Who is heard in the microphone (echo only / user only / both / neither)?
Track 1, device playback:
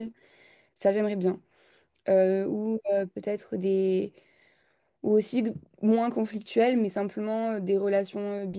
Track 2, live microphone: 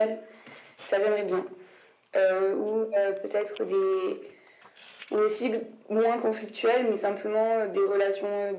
echo only